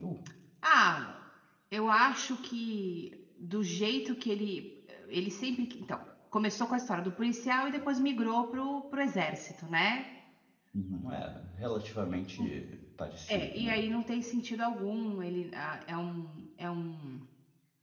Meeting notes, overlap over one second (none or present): none